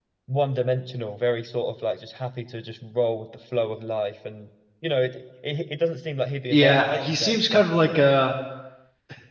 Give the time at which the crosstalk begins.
7 s

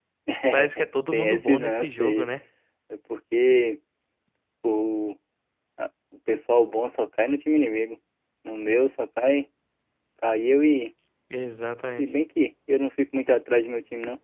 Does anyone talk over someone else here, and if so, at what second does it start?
1 s

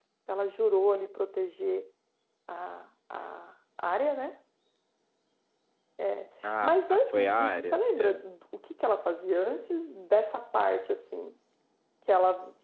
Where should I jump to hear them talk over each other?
7 s

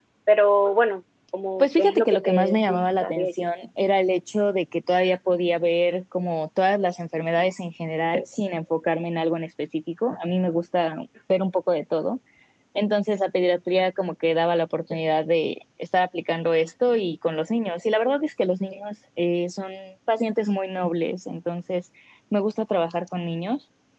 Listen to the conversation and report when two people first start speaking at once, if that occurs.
2 s

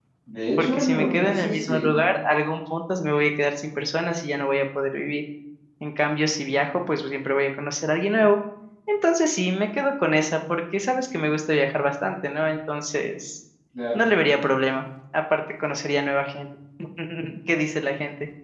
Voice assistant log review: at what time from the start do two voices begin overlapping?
1 s

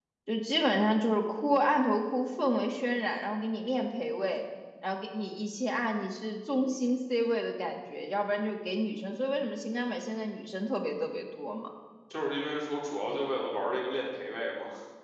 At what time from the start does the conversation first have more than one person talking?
none

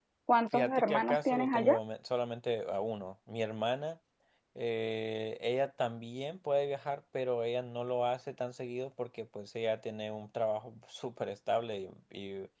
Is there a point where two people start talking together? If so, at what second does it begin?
1 s

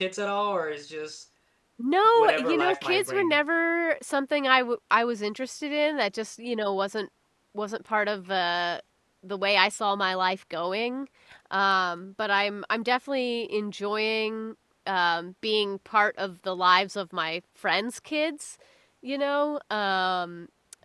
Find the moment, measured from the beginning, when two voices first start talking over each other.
2 s

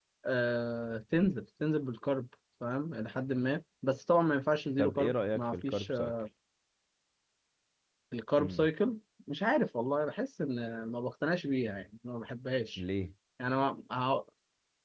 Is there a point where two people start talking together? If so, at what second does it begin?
5 s

